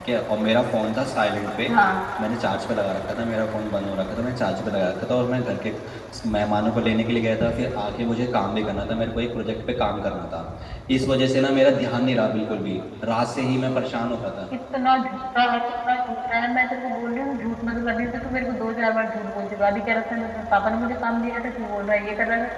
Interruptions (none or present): none